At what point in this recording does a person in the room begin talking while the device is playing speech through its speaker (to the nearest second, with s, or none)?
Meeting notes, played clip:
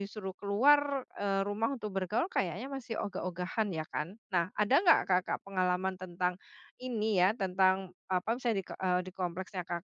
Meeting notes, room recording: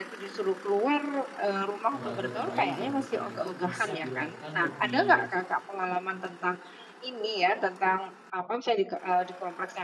2 s